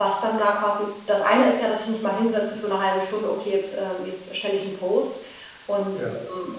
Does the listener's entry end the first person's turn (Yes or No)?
No